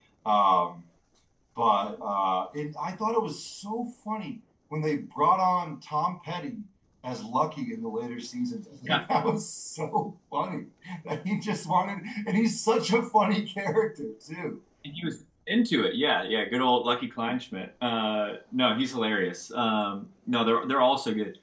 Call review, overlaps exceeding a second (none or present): none